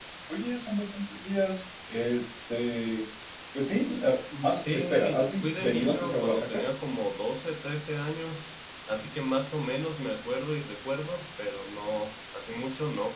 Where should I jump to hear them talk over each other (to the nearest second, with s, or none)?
5 s